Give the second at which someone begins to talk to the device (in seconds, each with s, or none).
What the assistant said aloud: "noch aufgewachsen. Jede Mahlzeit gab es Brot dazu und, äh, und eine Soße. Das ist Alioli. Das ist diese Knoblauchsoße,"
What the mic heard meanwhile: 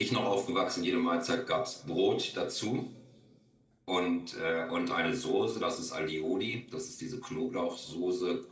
none